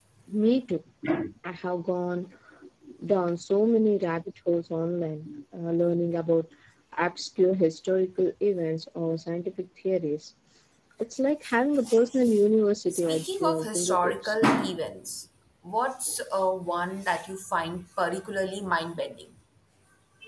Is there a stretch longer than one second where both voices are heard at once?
Yes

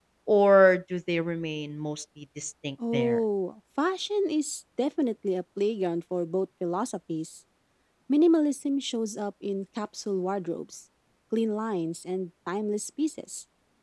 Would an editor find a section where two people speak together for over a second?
No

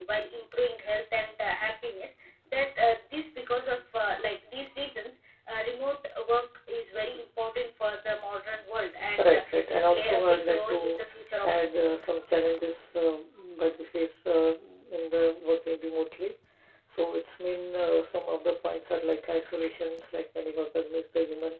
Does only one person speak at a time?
No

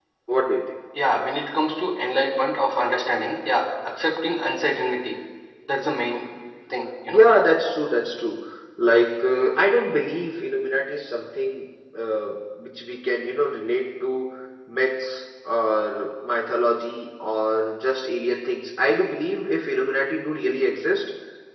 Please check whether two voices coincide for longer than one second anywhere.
No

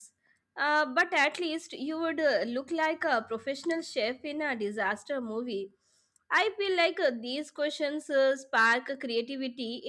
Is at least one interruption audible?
No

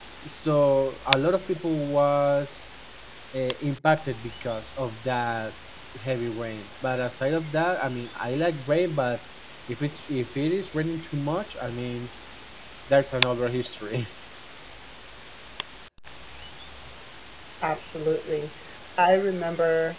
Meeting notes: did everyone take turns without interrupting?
Yes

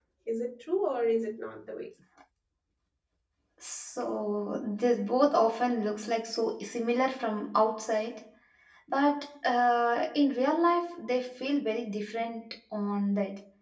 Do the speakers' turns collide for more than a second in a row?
No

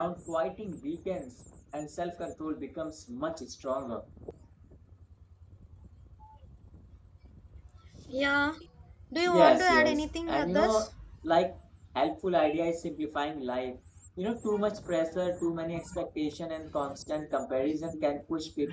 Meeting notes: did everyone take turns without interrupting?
No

